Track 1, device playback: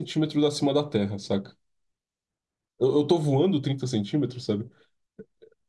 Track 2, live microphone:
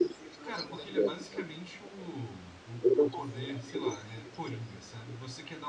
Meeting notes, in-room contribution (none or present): present